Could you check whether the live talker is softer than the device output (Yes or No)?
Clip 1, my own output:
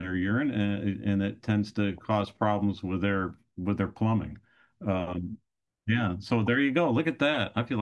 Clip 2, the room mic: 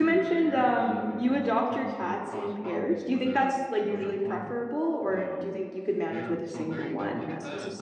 No